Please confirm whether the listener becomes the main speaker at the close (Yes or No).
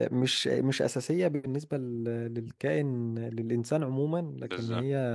No